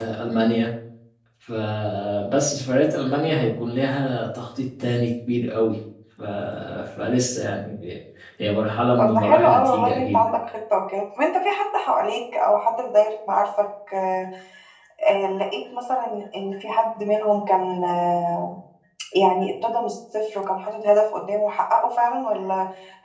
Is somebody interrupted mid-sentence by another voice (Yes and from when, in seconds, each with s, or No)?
Yes, from 9.0 s